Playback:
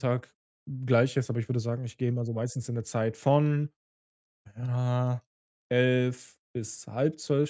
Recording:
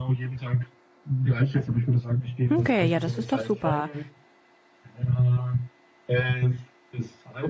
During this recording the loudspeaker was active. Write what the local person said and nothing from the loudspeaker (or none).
Okay, ja, das ist doch super.